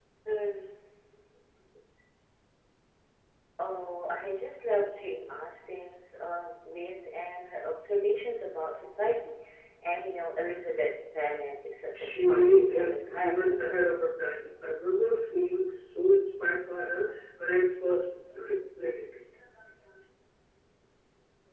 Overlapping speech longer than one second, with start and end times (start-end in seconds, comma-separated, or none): 11.9-13.6